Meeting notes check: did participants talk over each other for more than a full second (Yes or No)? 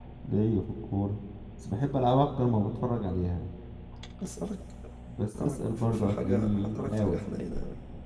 Yes